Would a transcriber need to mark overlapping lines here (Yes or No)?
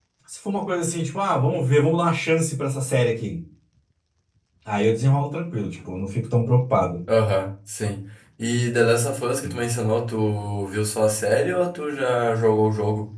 No